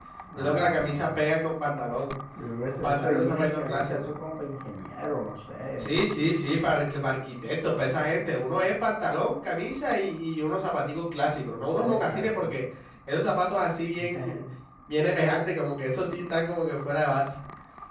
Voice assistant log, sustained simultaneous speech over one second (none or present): present